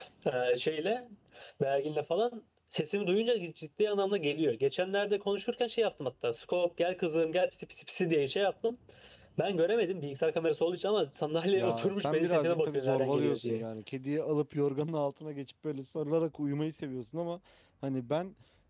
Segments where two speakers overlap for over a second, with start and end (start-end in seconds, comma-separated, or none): 11.6-13.6